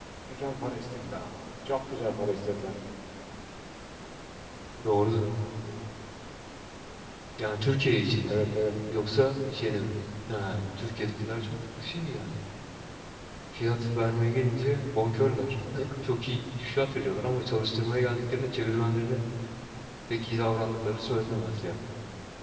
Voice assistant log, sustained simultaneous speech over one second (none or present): none